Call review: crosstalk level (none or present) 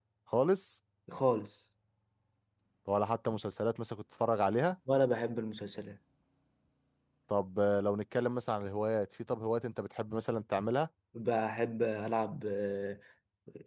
none